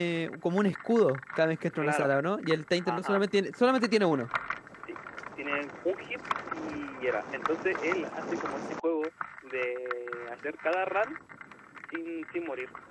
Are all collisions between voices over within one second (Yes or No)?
Yes